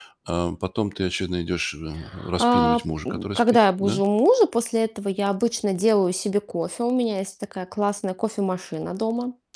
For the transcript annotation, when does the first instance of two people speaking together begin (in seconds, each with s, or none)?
2.4 s